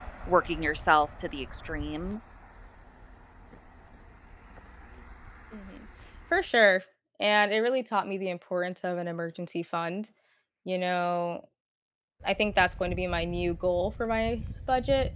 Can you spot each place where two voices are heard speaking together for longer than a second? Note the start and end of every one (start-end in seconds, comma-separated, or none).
none